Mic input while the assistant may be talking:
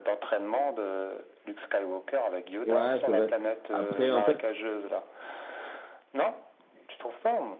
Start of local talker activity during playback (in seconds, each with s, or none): 2.6 s